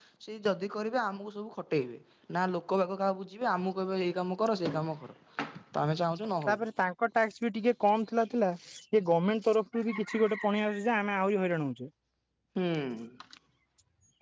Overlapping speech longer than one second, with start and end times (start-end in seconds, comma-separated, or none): none